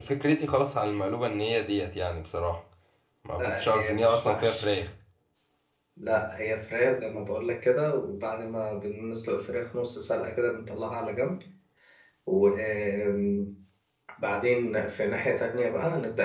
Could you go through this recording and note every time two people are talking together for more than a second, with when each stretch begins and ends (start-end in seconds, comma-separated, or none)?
3.4-4.7